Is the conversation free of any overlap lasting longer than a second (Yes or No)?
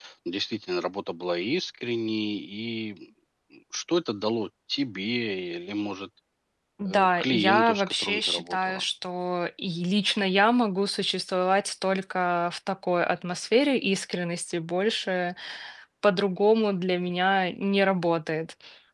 No